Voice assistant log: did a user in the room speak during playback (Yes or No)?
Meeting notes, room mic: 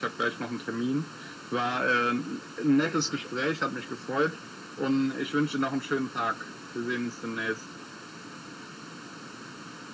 No